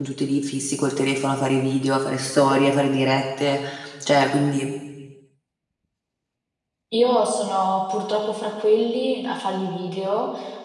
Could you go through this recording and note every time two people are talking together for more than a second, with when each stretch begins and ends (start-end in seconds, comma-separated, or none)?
none